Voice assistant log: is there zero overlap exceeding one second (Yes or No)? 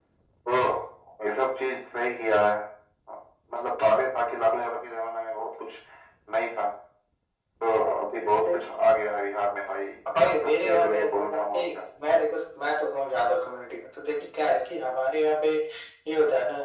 No